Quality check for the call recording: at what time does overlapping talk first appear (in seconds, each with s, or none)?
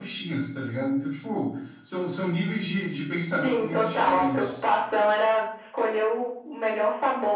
3.4 s